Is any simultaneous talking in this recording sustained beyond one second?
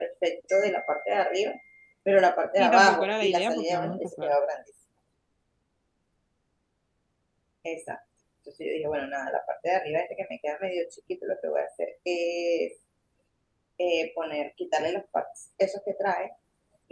Yes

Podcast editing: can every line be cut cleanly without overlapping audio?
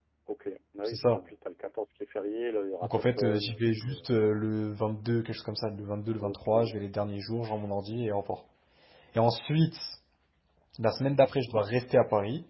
No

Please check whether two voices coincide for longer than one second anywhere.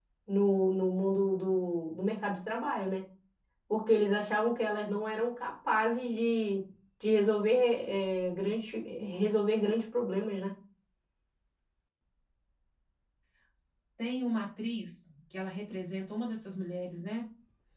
No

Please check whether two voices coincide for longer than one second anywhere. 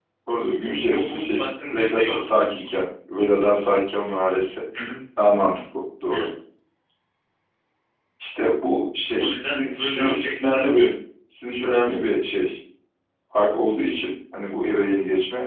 Yes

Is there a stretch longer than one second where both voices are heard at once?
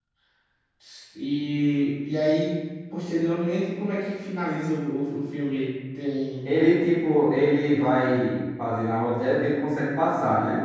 No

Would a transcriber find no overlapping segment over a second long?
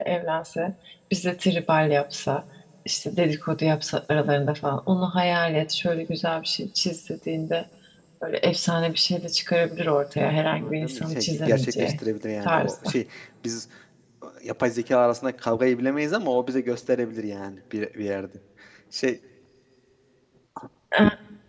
No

